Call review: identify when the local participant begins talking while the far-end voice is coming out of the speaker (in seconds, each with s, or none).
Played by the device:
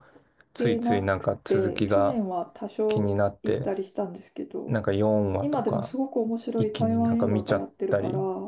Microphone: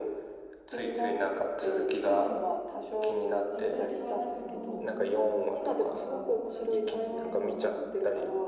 3.5 s